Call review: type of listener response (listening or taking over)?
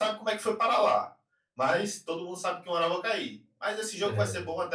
listening